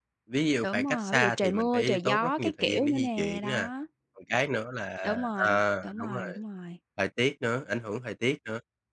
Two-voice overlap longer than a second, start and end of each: 0.6-3.7, 5.0-6.4

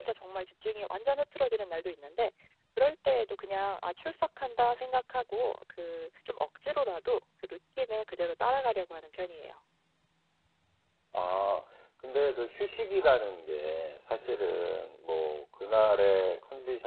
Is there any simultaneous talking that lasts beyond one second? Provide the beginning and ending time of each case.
none

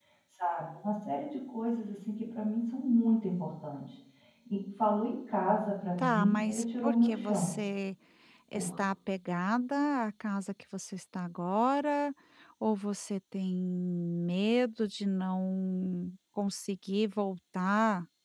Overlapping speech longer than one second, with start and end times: 6.0-7.5

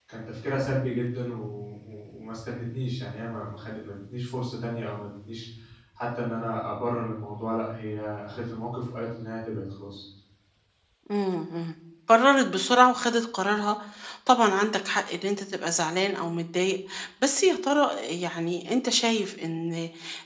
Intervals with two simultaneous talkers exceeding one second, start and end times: none

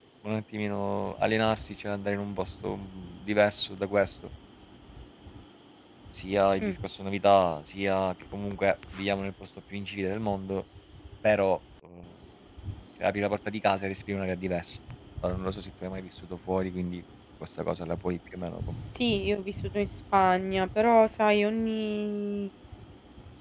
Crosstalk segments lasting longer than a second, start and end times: none

